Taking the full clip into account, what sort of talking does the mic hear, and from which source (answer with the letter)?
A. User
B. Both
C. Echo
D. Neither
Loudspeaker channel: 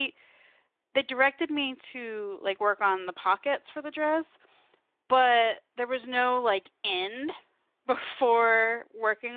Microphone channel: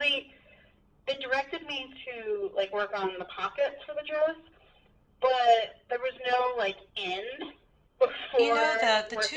B